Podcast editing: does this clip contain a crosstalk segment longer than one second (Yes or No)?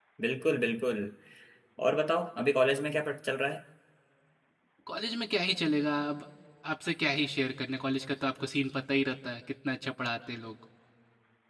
No